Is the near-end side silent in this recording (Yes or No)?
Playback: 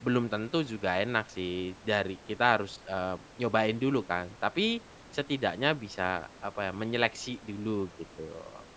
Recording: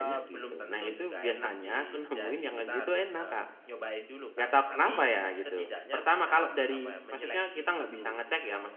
No